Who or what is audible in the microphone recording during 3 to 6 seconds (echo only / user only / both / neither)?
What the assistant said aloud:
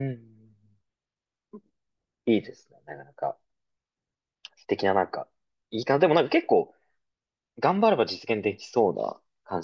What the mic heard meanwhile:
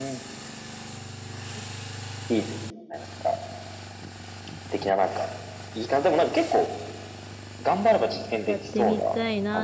echo only